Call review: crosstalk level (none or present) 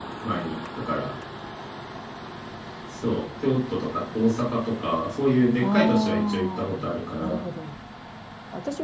present